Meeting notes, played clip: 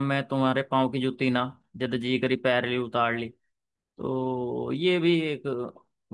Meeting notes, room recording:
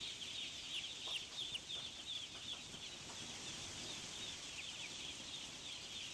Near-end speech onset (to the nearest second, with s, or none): none